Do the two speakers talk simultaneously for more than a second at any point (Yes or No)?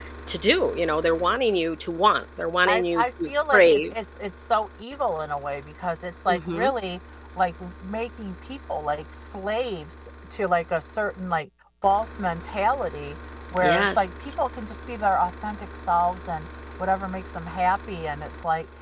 Yes